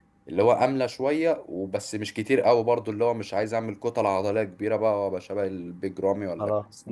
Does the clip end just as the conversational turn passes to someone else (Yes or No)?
Yes